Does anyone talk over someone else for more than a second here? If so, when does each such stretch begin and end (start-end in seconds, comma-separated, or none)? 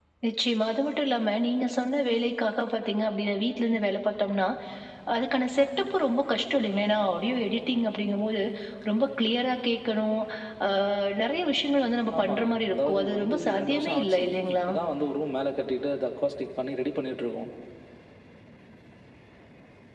12.2-14.6